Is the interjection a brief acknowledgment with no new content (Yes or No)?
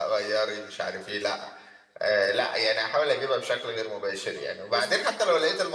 Yes